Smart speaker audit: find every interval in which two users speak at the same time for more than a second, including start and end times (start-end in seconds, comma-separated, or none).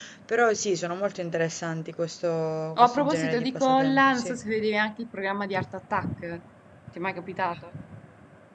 2.8-4.4